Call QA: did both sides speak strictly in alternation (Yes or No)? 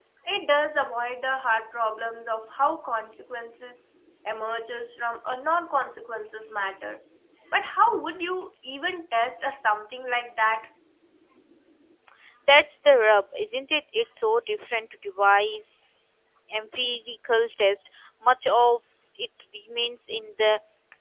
Yes